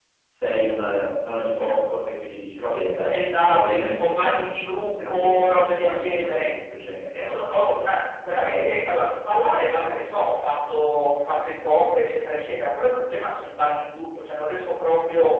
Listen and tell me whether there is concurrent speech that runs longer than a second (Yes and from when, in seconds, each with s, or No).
Yes, from 3.4 s